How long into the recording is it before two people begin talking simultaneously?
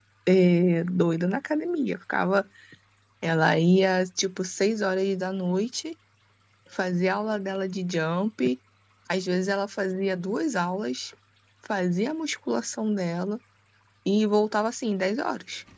none

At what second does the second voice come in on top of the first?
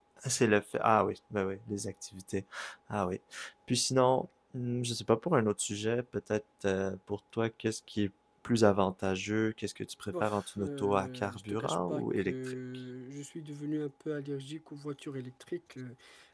10.1 s

